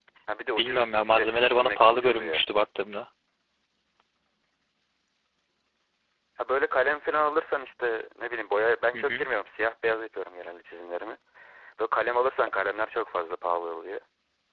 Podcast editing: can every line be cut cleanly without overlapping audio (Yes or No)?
No